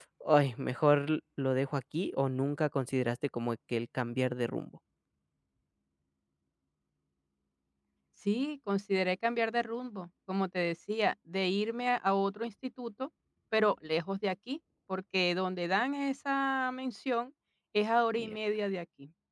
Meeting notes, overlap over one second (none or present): none